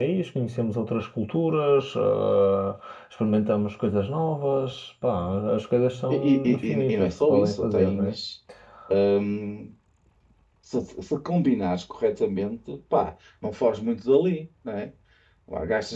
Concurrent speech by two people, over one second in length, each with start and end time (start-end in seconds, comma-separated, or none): 6.1-8.2